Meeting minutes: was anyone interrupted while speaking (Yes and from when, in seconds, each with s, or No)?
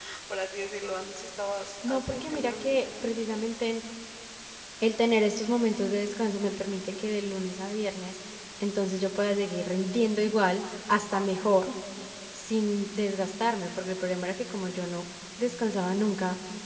Yes, from 1.8 s